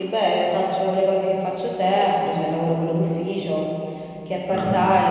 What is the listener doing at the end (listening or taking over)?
listening